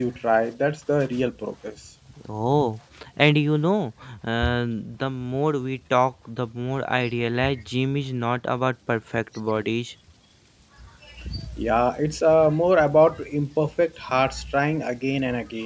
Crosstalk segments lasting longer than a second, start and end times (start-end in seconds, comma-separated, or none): none